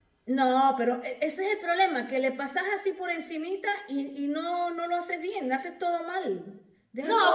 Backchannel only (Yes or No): No